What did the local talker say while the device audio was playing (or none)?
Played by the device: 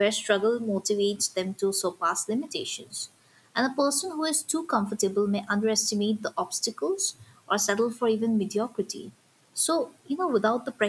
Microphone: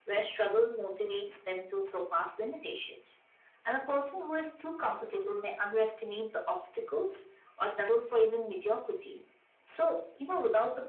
none